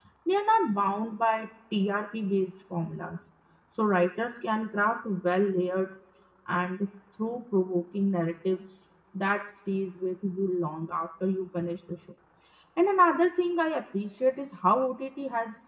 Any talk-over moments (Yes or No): No